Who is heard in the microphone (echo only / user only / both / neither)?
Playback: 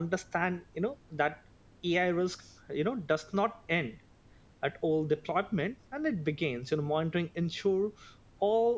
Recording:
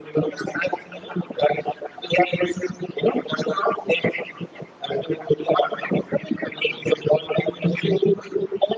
echo only